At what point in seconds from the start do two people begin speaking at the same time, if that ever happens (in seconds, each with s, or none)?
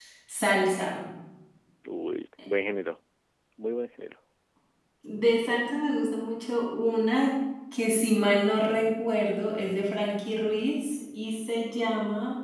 none